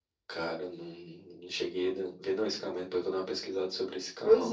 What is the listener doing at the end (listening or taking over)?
taking over